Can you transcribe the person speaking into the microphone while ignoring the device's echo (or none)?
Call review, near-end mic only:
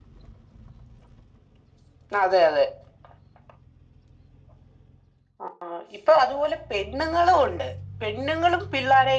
none